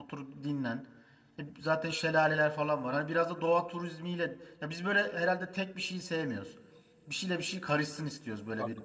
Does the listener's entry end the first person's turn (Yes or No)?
Yes